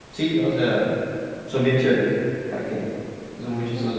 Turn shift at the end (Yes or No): Yes